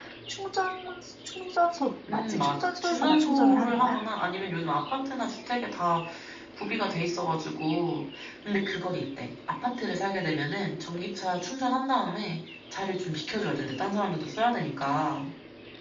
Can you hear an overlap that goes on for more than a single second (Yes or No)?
Yes